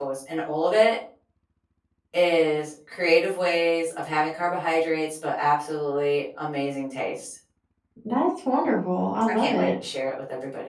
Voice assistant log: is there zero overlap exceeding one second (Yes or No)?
Yes